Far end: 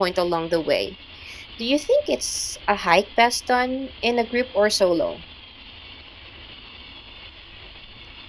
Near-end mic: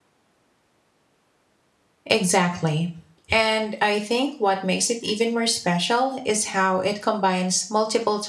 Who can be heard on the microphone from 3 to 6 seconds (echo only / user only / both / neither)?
user only